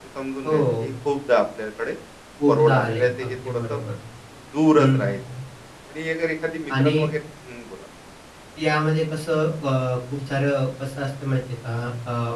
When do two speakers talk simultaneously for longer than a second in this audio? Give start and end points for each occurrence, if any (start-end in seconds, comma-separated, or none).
2.5-3.8